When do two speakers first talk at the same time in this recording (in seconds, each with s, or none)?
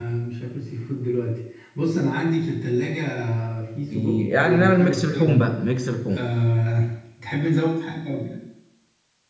3.9 s